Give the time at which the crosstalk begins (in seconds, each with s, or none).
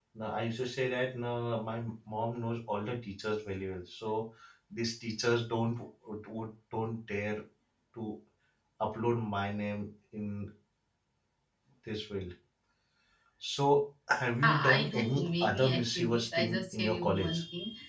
14.4 s